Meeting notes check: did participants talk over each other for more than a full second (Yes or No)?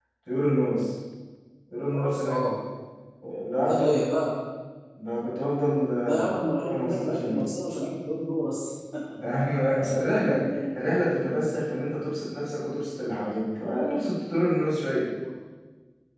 Yes